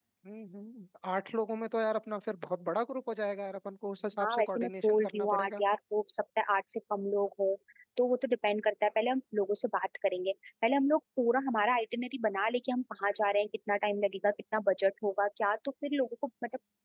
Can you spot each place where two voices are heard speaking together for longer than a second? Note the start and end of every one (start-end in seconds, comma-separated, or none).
4.2-5.6